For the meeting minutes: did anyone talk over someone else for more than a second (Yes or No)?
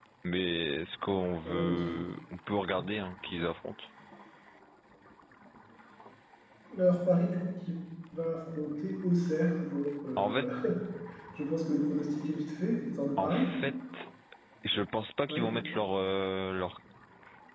No